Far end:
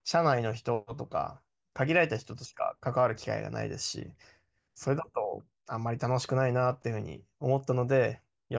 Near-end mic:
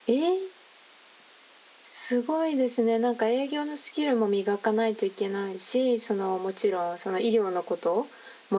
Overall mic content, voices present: user only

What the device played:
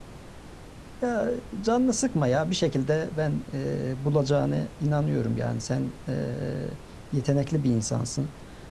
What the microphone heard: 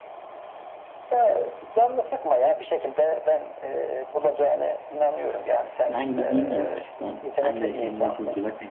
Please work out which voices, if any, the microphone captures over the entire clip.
both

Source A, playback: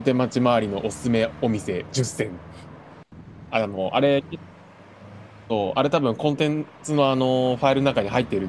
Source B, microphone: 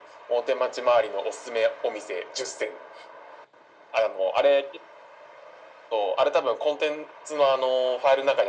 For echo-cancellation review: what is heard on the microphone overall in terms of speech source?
echo only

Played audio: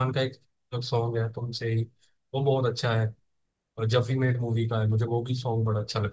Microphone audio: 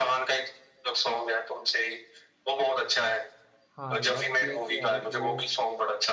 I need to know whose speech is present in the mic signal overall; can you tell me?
both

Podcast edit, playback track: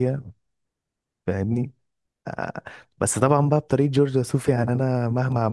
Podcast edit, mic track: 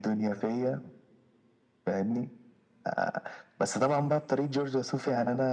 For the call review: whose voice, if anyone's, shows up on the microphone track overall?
echo only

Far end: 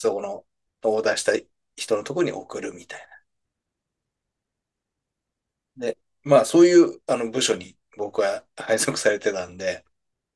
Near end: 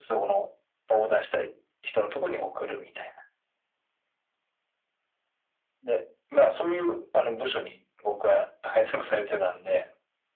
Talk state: echo only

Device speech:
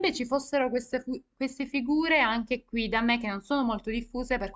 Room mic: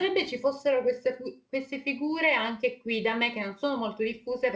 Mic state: echo only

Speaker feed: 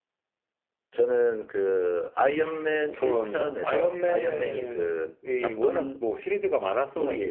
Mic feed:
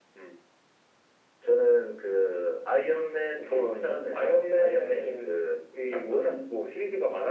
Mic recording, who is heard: echo only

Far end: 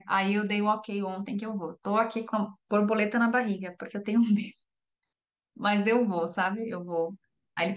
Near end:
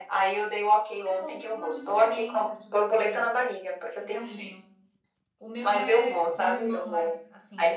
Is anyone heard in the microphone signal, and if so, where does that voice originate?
both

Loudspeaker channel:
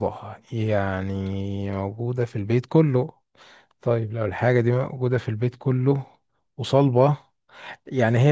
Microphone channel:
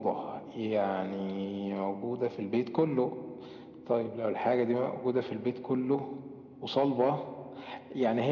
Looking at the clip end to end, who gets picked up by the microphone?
echo only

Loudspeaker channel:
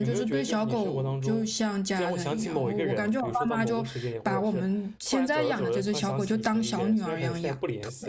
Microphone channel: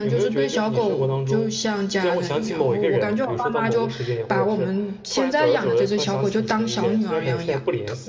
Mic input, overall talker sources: echo only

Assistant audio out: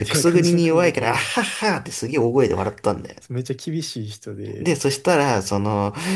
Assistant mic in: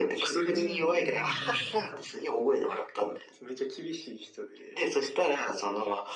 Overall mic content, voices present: both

